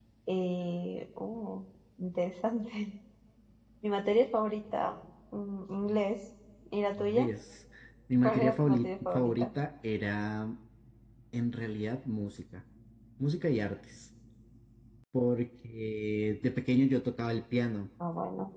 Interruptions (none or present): present